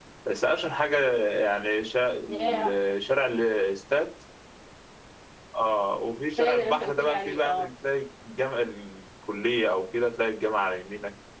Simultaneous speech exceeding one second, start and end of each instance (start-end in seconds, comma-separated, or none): 6.4-7.7